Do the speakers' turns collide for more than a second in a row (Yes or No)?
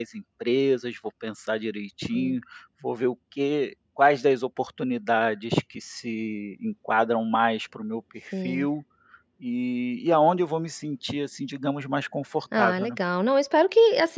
No